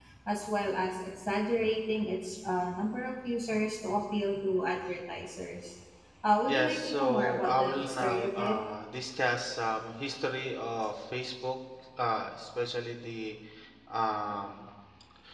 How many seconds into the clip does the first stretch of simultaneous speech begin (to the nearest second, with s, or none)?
6 s